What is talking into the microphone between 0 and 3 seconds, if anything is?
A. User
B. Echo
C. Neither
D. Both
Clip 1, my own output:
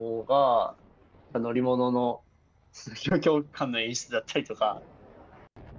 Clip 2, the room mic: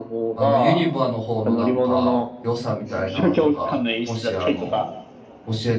D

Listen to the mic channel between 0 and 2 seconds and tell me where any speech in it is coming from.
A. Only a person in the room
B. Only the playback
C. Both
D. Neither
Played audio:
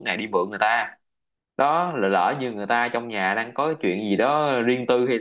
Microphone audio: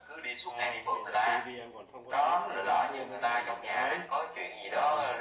C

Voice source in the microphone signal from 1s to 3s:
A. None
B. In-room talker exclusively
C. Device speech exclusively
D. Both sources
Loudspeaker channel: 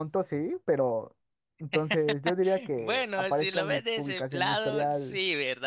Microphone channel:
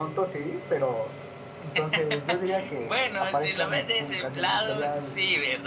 C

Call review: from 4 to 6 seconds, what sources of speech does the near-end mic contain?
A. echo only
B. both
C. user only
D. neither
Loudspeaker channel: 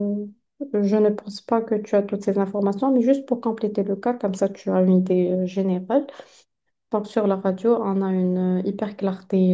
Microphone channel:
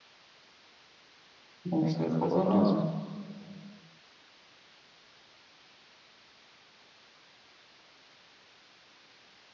D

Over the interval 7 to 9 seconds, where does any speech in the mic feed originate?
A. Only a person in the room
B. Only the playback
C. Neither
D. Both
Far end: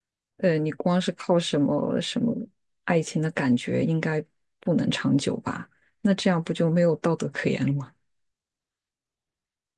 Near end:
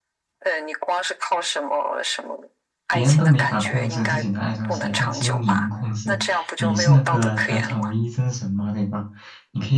D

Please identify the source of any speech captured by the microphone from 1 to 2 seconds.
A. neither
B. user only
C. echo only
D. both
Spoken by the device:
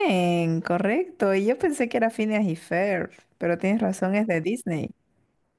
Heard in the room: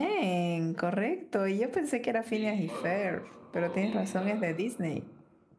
C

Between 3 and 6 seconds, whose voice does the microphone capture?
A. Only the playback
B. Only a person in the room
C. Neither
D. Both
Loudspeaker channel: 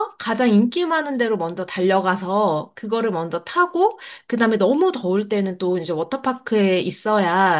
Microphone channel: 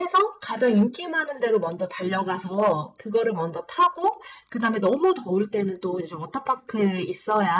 A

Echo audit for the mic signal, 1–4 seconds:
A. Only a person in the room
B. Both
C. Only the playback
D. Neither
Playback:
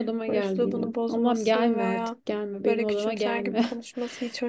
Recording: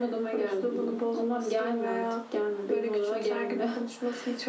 C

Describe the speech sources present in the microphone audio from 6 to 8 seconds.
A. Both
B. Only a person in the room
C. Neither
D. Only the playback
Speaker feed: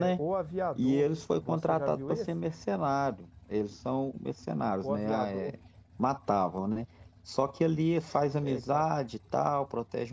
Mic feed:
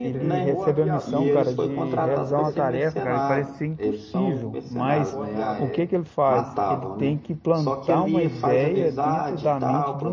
A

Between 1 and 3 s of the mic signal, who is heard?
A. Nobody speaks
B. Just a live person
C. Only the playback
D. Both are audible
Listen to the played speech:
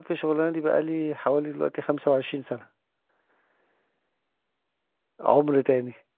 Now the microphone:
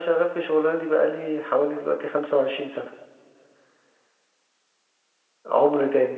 C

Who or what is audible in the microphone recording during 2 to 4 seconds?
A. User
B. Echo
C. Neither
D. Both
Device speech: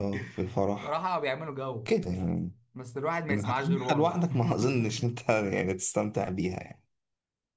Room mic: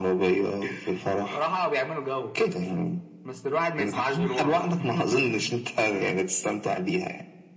B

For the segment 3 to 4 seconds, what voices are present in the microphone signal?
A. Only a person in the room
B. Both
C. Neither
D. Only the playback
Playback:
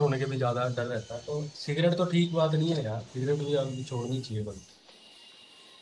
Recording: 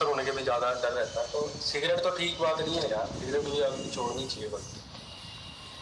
D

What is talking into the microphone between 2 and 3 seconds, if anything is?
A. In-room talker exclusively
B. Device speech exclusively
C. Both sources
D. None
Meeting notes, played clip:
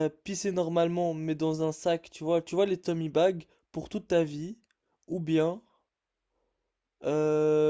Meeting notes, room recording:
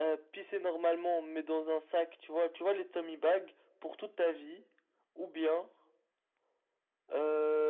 B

